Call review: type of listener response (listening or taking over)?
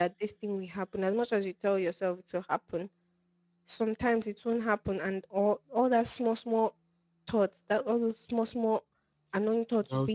listening